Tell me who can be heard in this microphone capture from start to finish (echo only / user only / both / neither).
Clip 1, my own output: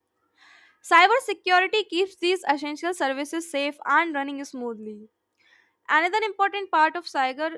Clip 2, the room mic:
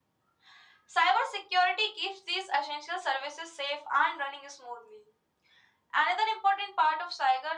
echo only